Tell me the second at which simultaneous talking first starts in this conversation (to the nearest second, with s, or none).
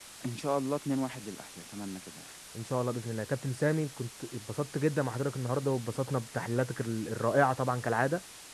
none